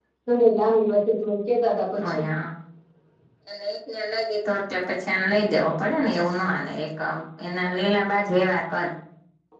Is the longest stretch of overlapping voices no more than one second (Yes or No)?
Yes